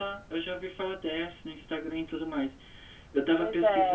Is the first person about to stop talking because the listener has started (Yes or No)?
No